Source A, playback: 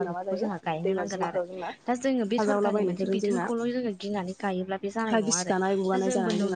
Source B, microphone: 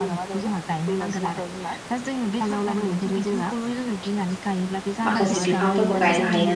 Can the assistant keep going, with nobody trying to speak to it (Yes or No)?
No